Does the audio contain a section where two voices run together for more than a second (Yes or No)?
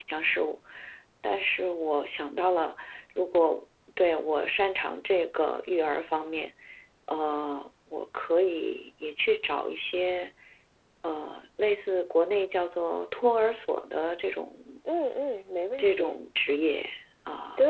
No